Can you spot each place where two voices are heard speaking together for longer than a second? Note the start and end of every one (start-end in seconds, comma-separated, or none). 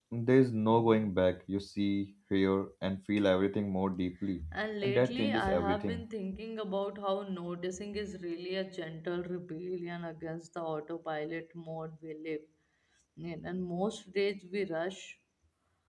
4.8-6.0